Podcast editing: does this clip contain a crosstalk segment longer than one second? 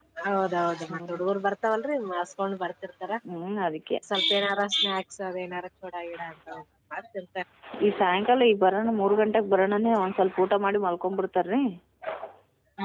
No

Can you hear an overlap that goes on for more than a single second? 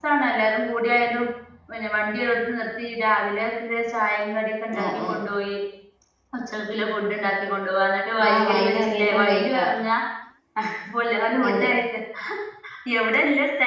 Yes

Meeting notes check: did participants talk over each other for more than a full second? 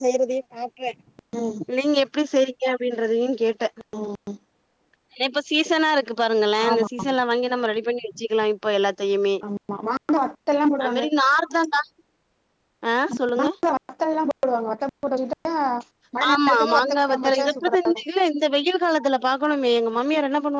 Yes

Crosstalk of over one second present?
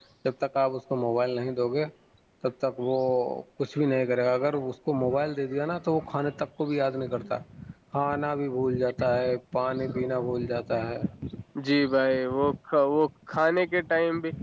No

